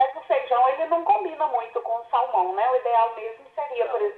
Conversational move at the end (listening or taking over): listening